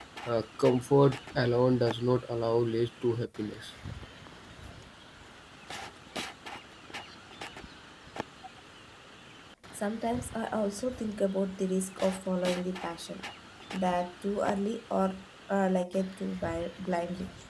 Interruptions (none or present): none